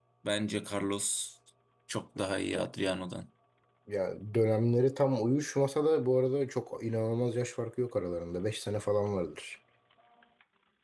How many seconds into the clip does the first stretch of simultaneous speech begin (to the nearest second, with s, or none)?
none